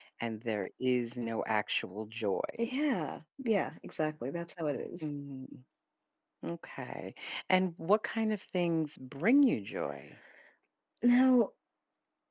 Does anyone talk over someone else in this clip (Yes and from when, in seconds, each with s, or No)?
No